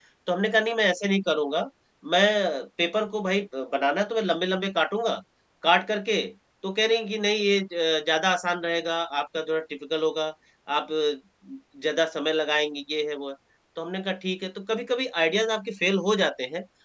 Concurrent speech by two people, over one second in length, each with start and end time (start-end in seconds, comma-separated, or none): none